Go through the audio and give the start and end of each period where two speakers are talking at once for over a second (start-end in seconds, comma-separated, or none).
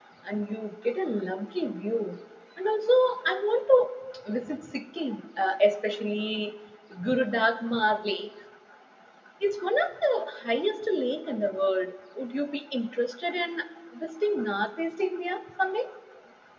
none